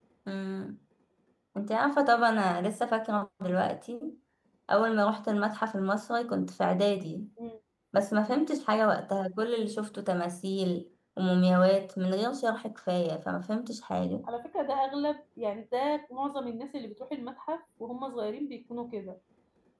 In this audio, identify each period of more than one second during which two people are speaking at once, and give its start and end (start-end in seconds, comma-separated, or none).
none